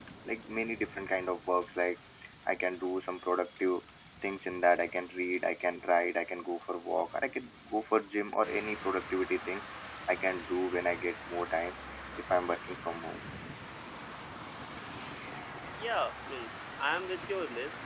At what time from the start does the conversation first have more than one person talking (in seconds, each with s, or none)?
none